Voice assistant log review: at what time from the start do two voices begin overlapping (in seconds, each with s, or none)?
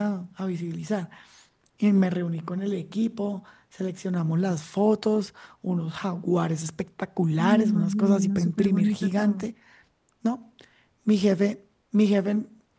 7.4 s